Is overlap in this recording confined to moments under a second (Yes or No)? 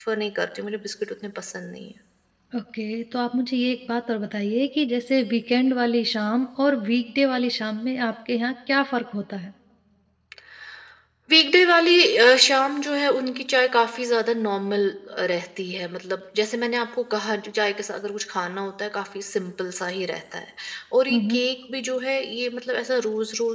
Yes